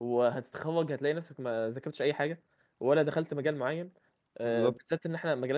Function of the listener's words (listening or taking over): listening